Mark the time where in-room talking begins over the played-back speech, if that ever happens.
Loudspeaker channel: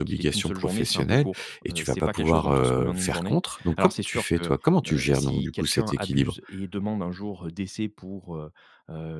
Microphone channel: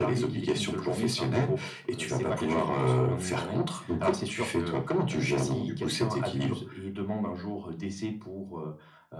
none

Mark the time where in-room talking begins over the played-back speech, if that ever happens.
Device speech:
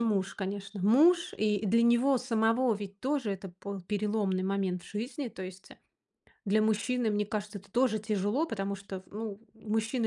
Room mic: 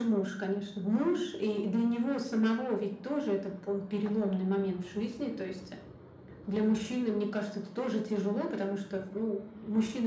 none

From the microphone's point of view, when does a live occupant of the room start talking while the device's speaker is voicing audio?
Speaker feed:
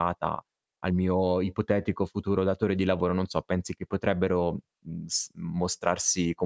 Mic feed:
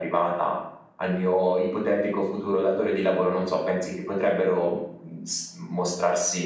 none

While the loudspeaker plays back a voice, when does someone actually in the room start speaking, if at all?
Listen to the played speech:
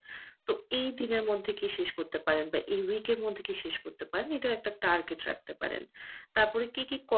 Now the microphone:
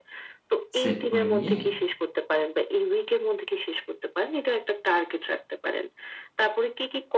1 s

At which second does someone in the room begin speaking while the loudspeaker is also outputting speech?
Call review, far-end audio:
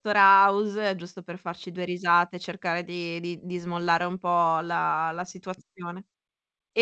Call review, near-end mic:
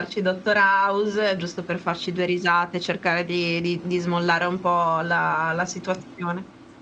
none

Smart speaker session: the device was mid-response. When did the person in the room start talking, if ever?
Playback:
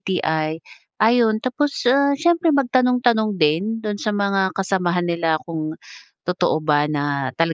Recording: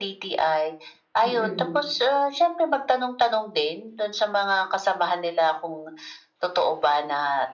1 s

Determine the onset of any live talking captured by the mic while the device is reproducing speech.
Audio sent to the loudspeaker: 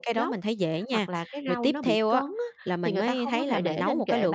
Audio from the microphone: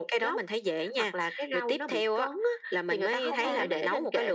3 s

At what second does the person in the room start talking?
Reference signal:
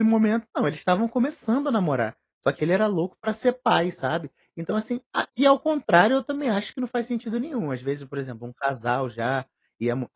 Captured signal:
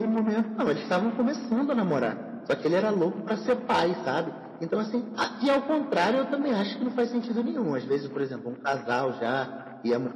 none

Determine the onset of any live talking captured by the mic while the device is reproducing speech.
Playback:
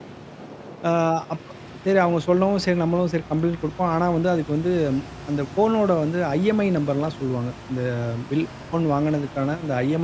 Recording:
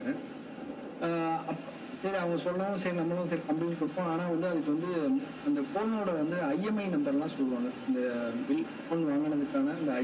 none

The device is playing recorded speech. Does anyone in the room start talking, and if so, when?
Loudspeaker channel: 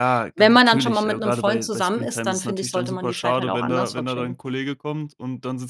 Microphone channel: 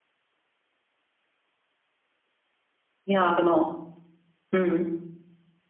3 s

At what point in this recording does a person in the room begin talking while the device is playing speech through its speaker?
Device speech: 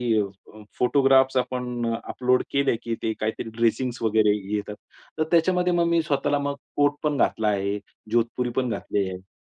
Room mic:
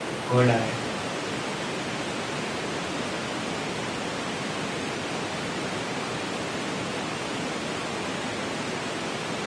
0 s

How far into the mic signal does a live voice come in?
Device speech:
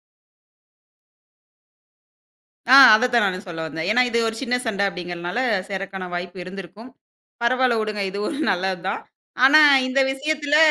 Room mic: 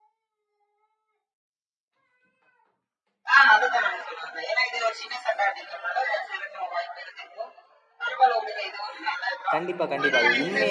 10 s

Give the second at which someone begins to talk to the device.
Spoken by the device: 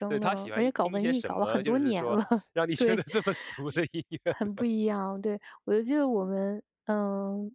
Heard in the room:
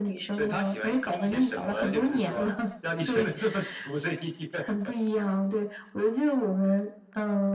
none

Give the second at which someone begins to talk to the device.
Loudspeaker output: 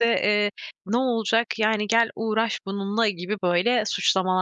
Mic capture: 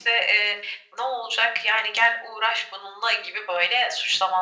none

